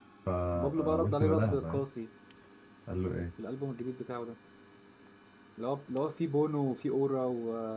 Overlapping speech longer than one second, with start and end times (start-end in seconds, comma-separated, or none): 0.5-1.8